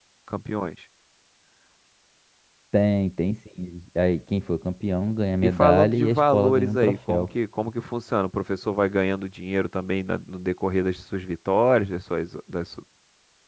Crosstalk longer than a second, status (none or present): present